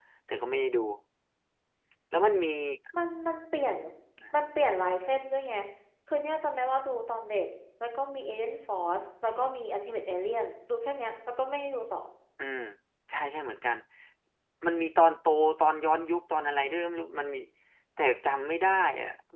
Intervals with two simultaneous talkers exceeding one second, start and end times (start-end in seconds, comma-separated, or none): none